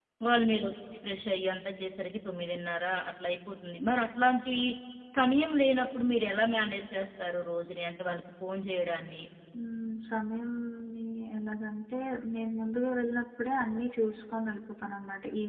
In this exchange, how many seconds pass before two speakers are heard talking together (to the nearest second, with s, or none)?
none